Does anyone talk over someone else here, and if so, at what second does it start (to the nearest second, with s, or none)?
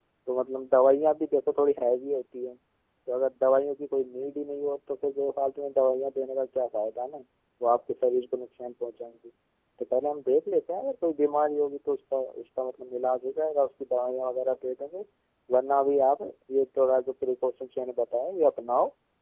none